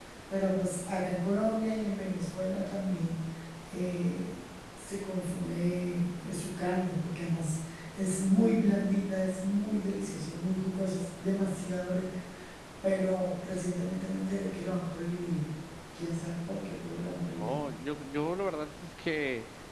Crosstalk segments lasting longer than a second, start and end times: none

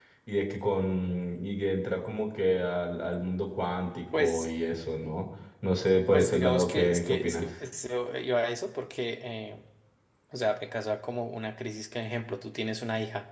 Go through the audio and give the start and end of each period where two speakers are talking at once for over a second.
6.1-7.5

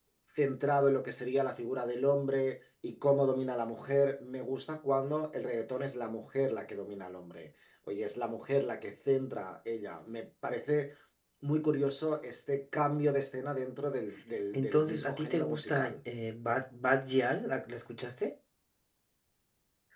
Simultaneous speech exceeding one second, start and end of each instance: 14.5-15.9

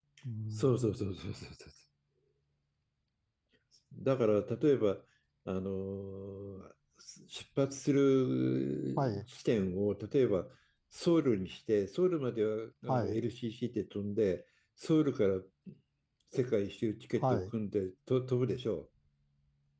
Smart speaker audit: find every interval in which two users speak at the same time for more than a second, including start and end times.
none

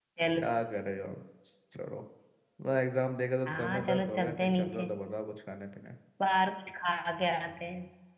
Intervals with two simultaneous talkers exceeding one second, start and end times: 3.5-4.9

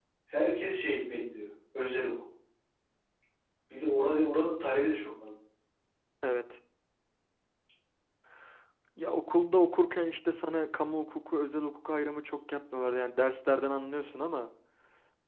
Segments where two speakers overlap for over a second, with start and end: none

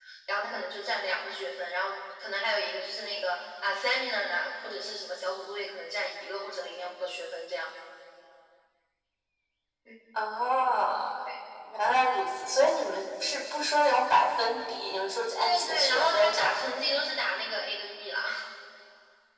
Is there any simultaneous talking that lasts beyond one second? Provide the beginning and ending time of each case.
15.4-16.6

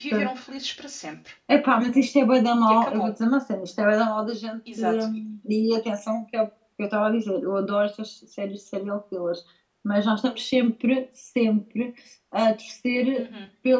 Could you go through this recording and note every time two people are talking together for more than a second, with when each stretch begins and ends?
none

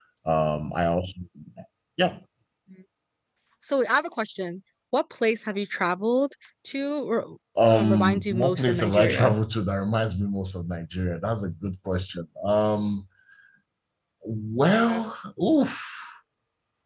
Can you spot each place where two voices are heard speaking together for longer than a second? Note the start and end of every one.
7.7-9.3

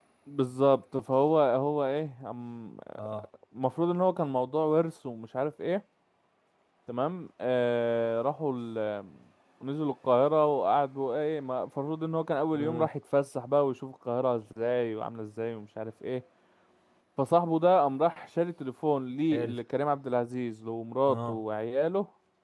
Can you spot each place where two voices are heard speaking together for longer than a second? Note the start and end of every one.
none

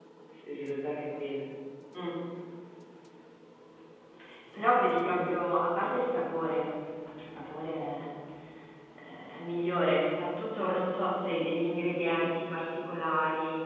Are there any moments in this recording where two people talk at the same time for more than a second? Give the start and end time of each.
none

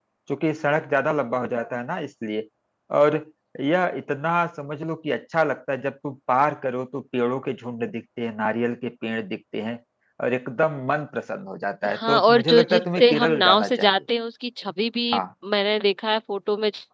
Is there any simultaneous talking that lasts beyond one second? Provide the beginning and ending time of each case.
11.9-13.9

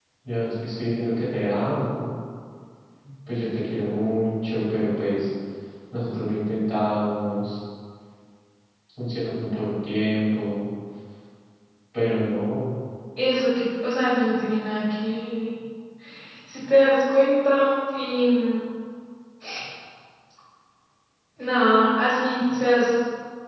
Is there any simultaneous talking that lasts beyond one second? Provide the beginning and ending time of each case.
none

